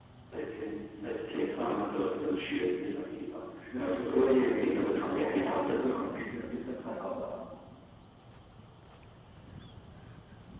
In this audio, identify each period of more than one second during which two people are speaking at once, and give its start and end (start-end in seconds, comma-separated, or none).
3.8-6.0